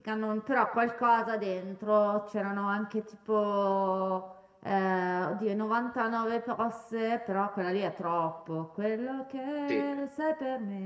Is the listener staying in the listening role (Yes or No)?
Yes